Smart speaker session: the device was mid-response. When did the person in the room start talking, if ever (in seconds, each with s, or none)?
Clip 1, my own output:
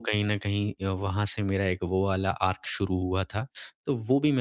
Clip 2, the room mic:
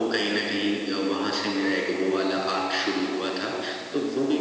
none